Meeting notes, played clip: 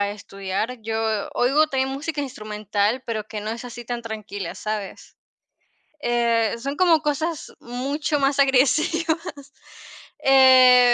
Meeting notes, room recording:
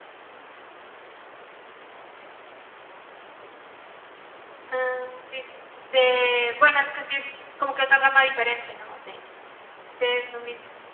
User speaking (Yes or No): Yes